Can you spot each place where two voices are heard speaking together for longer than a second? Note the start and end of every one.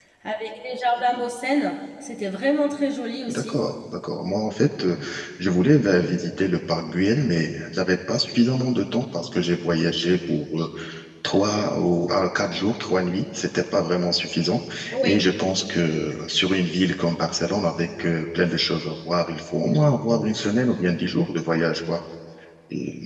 none

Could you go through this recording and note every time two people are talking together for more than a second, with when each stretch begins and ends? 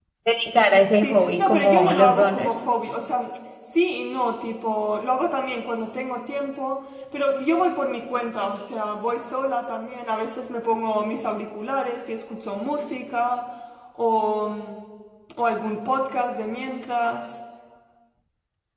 0.9-2.6

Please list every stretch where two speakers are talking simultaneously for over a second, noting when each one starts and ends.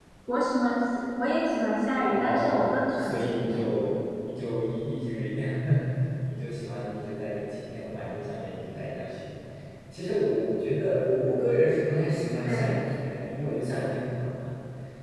2.1-3.7

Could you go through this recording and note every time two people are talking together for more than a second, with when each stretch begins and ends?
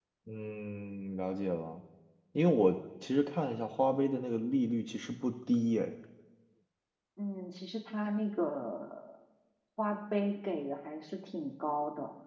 none

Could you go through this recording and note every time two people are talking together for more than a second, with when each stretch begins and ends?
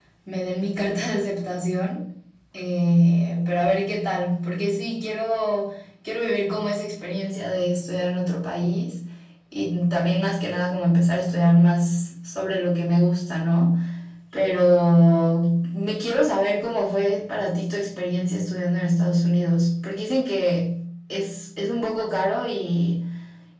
none

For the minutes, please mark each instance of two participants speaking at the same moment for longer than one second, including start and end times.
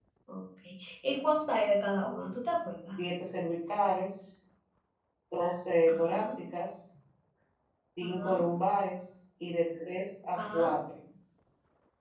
none

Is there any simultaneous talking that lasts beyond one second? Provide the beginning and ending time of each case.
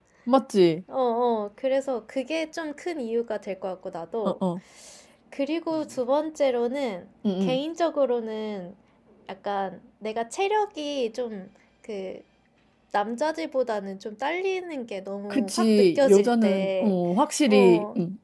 15.3-16.9

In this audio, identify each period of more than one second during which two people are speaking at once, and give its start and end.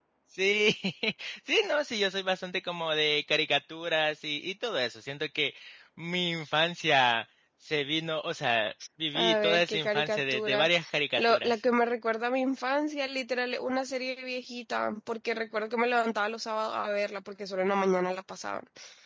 9.2-10.7

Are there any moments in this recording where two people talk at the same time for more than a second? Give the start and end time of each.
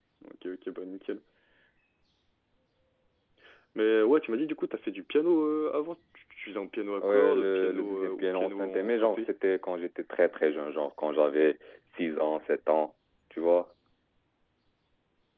7.0-9.3

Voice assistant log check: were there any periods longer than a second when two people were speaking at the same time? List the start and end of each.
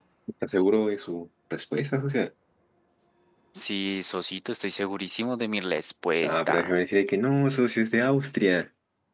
none

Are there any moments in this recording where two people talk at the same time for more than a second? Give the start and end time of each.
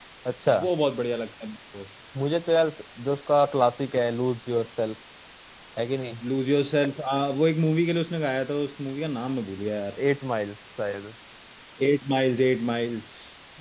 none

